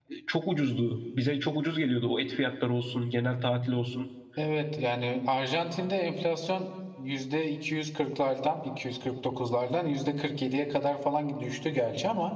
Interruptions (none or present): none